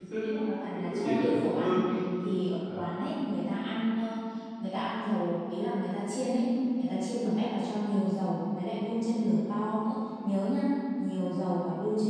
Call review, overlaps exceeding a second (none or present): present